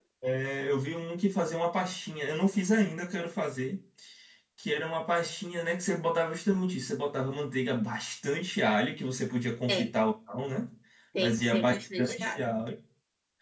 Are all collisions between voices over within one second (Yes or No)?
No